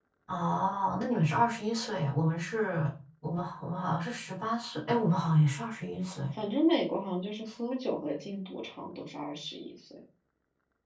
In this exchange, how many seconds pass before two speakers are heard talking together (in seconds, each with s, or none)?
none